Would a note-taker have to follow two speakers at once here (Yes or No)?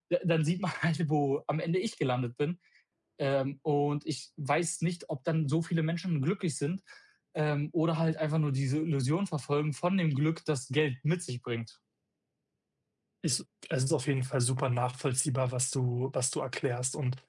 No